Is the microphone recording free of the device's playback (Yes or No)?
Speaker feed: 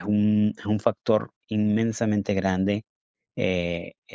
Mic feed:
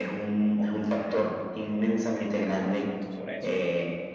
No